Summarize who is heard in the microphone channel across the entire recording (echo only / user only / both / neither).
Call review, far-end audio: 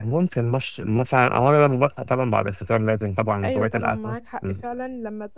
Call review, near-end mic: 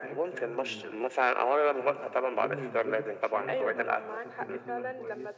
both